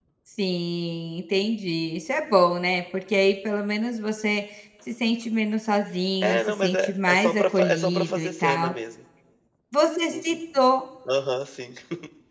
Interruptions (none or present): present